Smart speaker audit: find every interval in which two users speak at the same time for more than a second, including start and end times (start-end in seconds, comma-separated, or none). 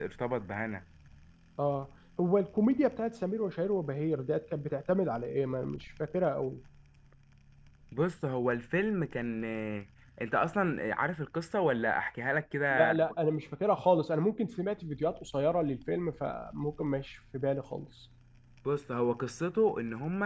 none